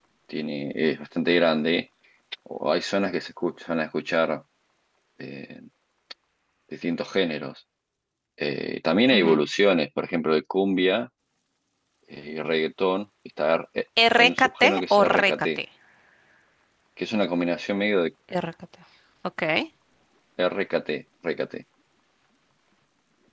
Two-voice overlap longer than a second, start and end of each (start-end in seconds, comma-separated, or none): 14.2-15.6